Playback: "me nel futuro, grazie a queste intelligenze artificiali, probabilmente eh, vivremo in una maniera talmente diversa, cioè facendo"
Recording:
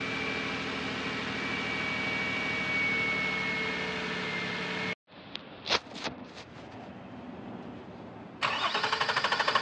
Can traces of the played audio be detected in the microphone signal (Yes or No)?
No